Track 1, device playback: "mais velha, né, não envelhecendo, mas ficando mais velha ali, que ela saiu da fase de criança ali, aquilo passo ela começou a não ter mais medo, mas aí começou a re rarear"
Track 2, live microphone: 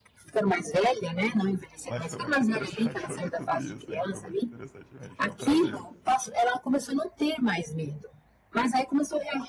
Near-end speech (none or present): present